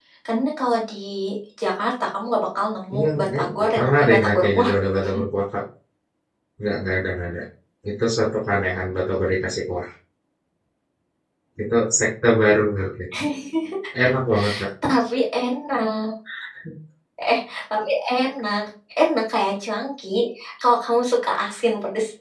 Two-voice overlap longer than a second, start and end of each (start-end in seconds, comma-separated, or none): 2.9-4.7